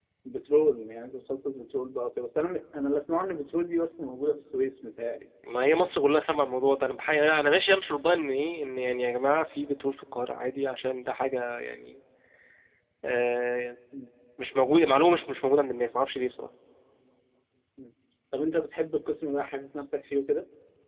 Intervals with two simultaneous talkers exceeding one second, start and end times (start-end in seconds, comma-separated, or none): none